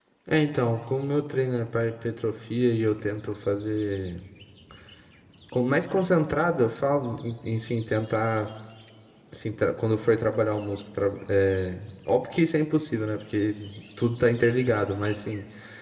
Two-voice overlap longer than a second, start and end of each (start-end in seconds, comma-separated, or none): none